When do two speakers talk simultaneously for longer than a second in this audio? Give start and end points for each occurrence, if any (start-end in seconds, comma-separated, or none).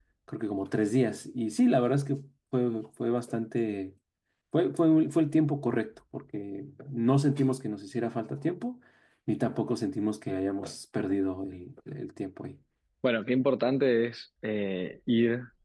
none